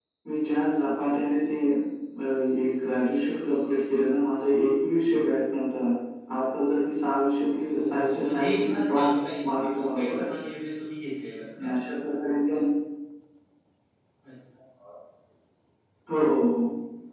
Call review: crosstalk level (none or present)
present